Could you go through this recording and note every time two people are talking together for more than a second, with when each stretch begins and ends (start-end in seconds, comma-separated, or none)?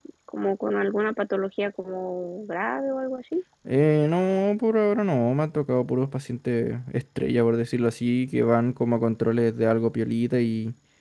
none